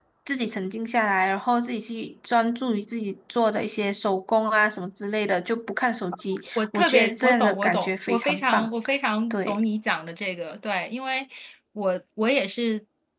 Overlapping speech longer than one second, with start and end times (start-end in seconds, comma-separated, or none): 6.6-8.7